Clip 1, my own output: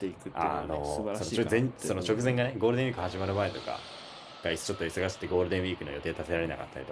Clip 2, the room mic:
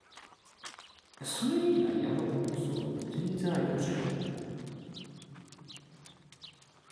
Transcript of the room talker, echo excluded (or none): いやそれいいな。やろう。そう。全然ありかもしれん。